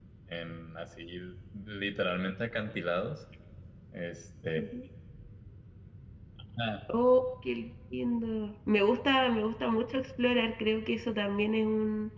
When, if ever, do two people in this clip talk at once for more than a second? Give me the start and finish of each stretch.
none

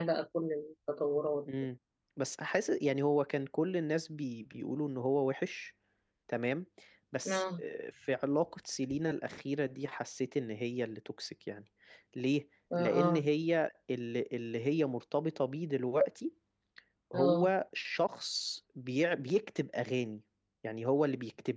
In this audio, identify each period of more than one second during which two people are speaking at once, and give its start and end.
none

